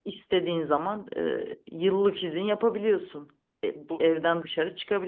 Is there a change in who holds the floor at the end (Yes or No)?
No